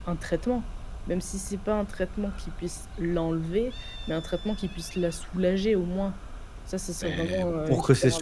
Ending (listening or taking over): taking over